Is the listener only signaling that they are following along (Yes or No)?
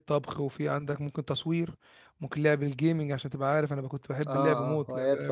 No